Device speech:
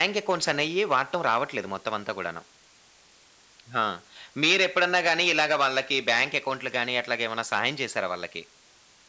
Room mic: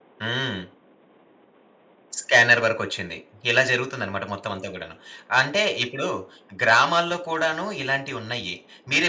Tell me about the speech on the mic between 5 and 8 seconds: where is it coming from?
user only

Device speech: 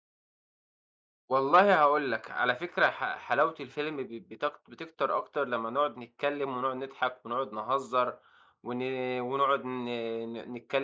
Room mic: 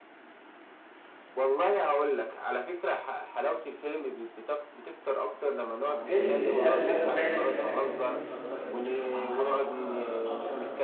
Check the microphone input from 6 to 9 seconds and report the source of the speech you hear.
both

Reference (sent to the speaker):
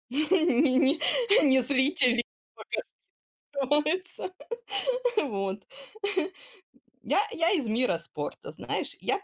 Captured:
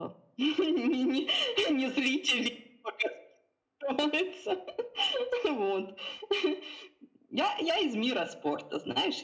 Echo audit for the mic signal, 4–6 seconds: echo only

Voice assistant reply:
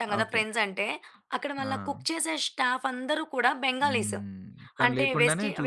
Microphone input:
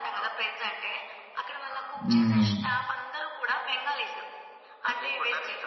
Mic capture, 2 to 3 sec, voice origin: both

